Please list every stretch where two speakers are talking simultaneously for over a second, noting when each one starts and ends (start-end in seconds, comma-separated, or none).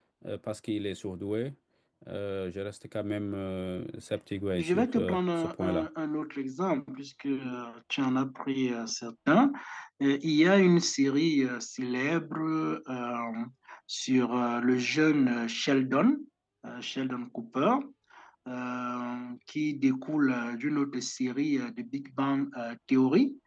4.5-5.9